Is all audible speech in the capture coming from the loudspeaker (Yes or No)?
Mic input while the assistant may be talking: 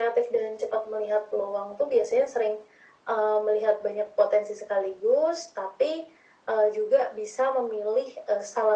Yes